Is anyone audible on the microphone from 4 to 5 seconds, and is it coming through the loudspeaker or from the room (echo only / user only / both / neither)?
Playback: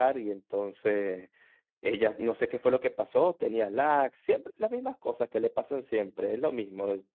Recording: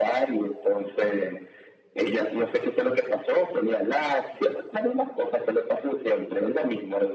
echo only